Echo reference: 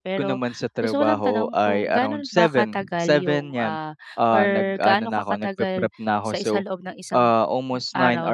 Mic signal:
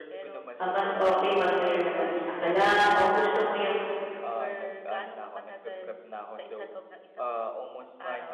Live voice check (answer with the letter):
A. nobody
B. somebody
B